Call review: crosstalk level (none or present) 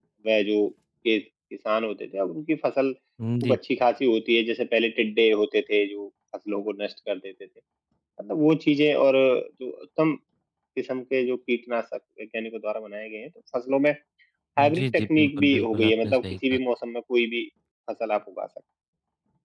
present